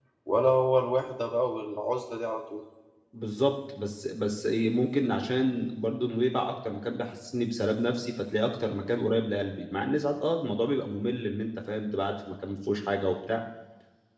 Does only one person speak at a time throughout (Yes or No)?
Yes